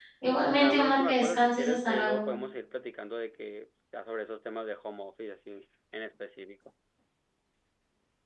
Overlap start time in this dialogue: 1 s

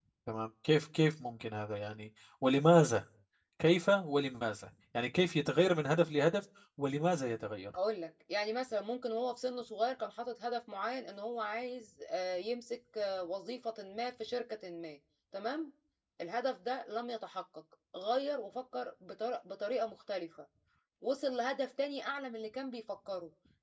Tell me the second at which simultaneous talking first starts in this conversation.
none

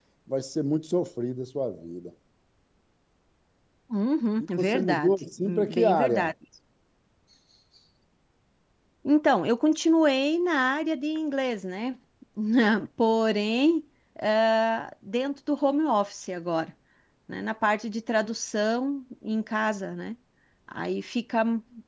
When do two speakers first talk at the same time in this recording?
4 s

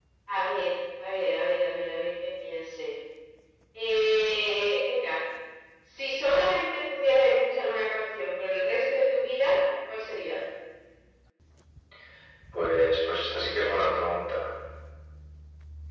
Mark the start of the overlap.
none

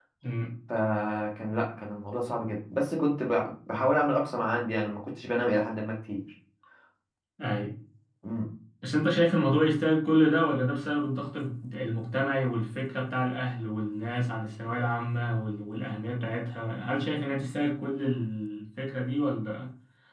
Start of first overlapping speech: none

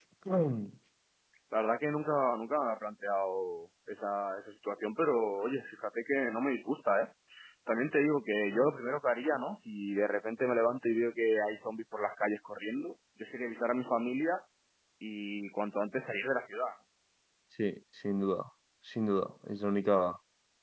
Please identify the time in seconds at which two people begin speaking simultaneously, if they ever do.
none

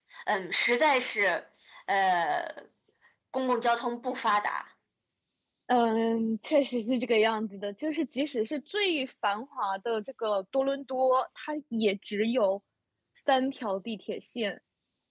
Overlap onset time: none

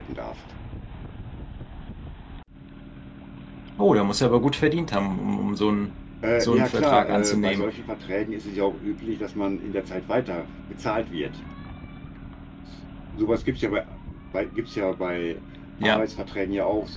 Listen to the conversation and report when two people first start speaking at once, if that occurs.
6 s

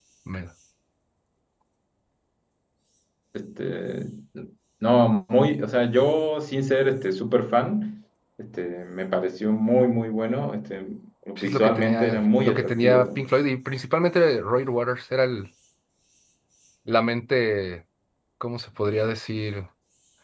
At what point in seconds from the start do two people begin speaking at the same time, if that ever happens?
11 s

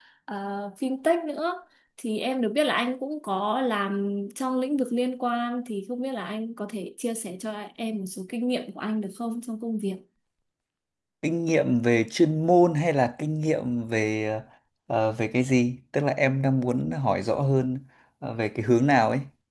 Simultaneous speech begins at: none

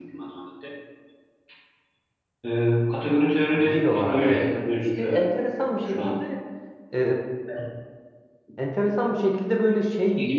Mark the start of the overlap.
4 s

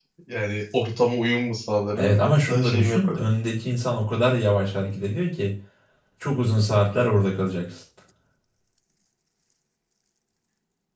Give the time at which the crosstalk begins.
2 s

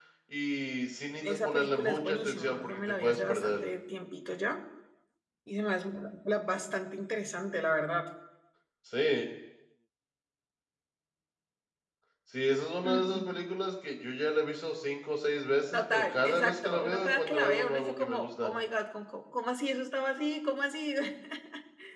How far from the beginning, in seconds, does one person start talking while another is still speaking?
1 s

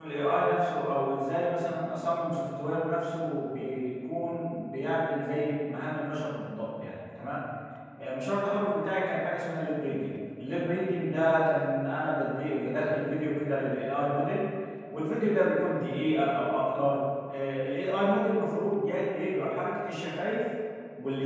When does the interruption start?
none

